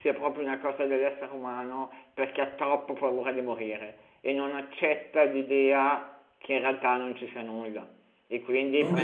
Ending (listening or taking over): listening